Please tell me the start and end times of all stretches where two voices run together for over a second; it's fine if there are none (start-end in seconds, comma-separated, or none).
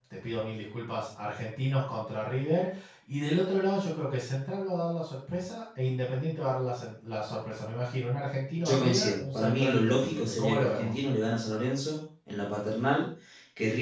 8.6-11.0